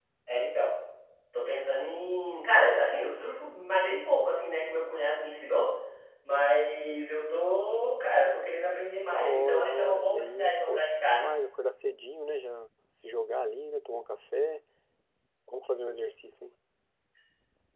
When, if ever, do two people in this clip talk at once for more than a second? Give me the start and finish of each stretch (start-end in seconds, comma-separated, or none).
9.1-11.3